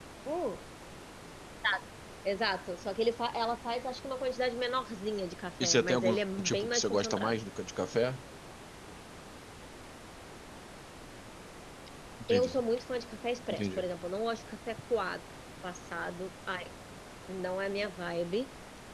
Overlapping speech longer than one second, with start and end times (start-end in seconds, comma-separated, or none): 5.6-7.4